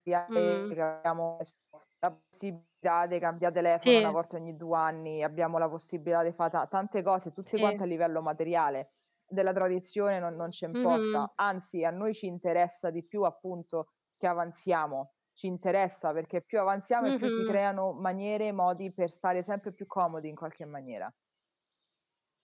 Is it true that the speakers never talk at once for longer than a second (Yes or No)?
Yes